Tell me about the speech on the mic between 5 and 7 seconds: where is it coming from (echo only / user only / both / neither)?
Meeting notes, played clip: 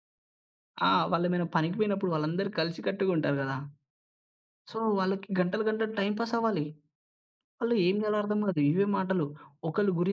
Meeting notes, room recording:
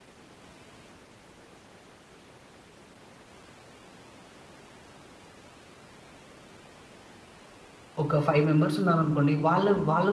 neither